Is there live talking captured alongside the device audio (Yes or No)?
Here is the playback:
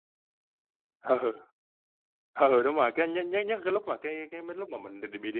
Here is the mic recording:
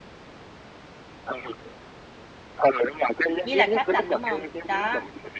Yes